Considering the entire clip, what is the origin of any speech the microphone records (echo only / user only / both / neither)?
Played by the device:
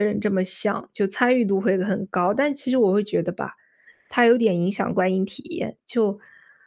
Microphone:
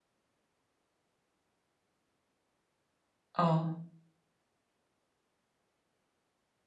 user only